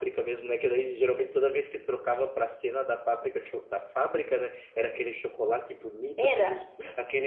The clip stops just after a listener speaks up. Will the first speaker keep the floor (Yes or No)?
Yes